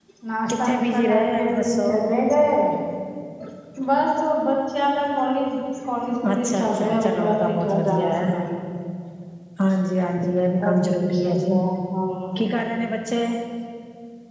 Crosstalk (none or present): present